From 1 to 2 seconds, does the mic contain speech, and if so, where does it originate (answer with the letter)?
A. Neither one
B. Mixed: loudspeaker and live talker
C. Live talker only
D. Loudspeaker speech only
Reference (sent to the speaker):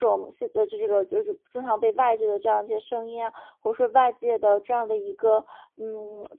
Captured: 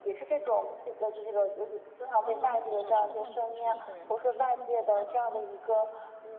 D